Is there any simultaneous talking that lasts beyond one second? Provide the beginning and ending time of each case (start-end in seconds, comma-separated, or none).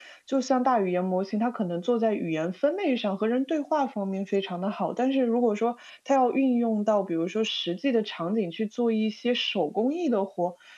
none